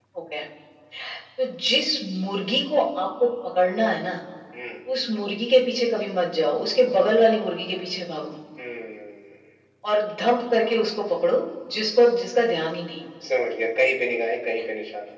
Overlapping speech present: No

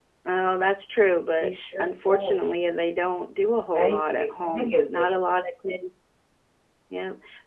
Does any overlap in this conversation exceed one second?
Yes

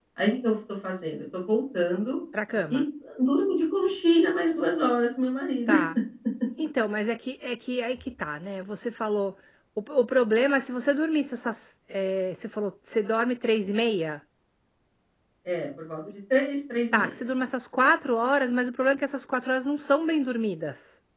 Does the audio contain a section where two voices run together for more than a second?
No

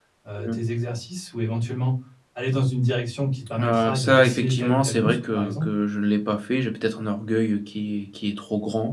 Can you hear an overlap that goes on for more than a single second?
Yes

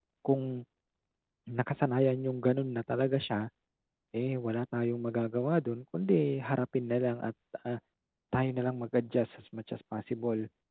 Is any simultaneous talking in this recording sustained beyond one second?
No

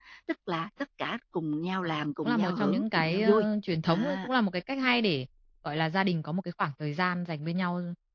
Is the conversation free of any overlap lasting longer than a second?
No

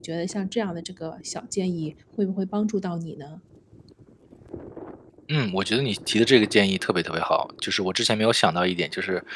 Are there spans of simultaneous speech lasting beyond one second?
No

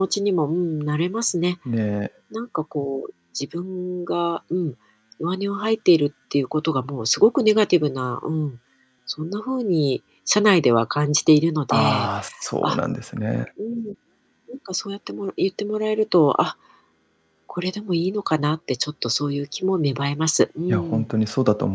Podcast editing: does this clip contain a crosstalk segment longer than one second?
No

